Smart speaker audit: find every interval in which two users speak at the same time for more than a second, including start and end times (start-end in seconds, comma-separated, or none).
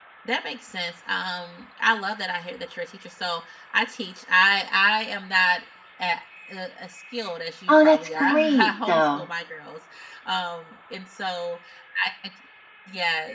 7.7-9.3